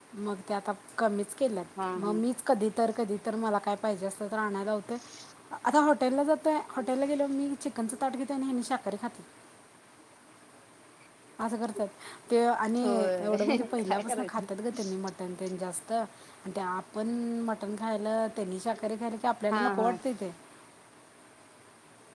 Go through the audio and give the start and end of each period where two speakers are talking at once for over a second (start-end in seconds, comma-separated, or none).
12.8-14.4